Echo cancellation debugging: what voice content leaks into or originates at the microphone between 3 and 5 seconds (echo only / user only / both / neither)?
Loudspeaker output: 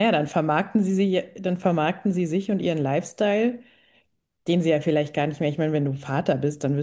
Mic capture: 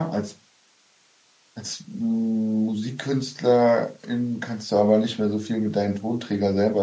user only